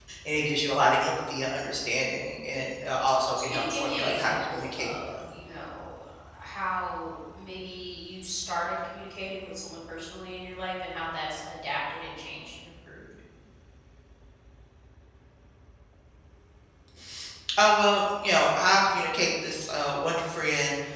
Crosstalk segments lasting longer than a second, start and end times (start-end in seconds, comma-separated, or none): 3.4-5.2